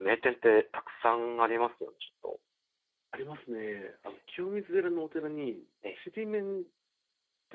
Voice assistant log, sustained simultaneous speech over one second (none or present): none